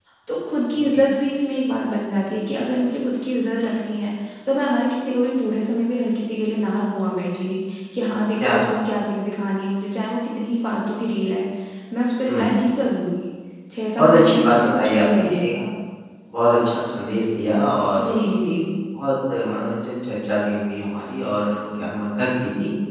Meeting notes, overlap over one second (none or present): present